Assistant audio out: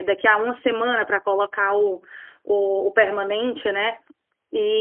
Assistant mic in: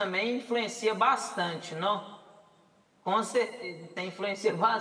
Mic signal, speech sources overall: user only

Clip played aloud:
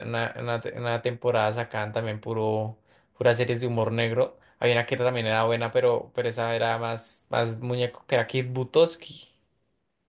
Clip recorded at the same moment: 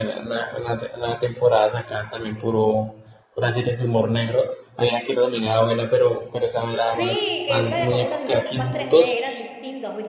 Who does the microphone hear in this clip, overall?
both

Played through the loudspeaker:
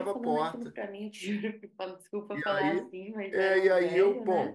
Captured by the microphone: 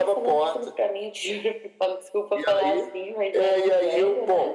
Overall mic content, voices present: echo only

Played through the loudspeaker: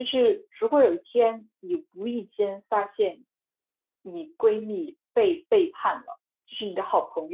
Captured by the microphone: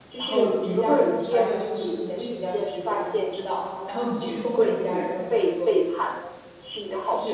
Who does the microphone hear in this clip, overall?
both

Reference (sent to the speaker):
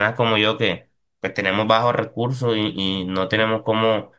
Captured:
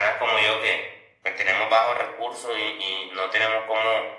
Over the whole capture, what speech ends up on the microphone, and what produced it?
echo only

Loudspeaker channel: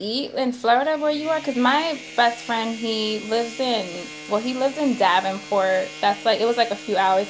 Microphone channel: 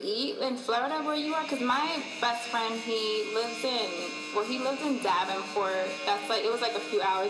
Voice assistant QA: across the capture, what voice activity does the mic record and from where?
echo only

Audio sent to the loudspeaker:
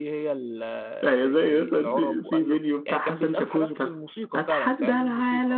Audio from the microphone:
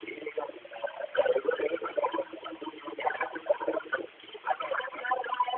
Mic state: echo only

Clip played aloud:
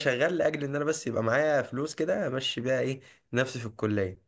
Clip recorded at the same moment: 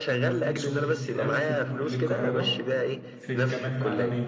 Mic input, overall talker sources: both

